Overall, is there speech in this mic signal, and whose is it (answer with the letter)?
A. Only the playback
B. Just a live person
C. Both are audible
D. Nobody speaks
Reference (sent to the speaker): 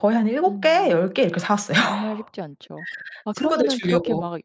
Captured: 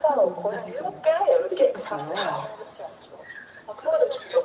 C